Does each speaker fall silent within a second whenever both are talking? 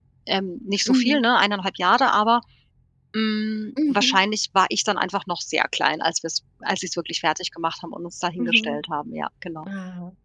Yes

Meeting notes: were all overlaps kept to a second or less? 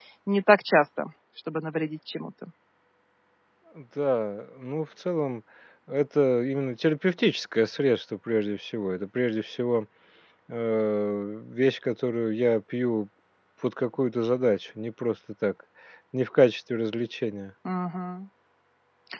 Yes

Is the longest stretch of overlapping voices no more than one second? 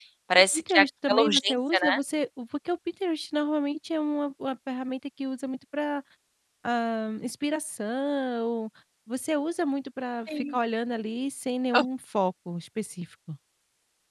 No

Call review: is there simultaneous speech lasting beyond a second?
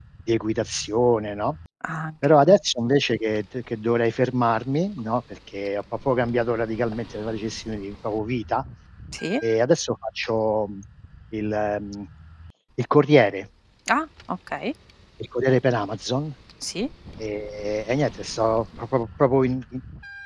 No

